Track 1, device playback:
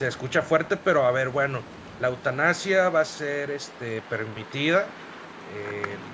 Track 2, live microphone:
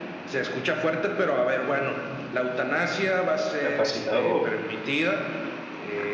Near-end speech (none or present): present